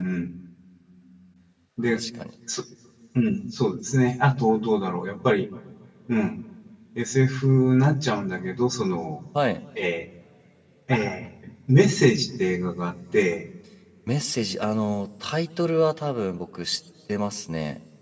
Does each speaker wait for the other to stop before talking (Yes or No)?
Yes